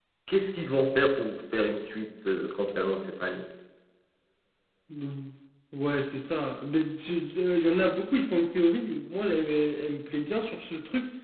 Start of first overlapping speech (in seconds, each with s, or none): none